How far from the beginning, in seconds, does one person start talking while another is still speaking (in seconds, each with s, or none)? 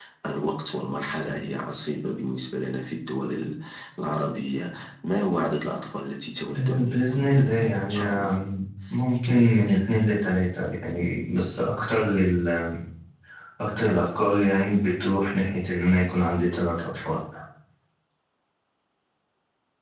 6.5 s